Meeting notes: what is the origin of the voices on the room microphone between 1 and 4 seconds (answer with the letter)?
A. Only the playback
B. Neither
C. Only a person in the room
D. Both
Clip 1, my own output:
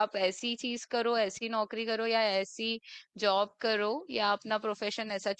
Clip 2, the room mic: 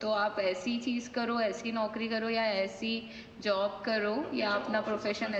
A